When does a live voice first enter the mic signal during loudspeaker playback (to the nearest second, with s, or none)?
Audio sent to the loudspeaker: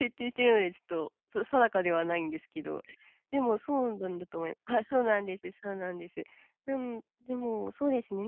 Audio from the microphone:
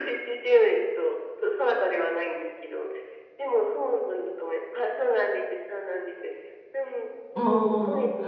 7 s